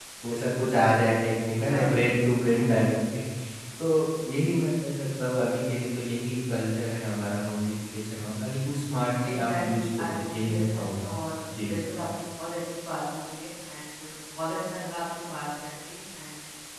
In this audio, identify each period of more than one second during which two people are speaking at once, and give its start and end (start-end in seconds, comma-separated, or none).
9.3-11.1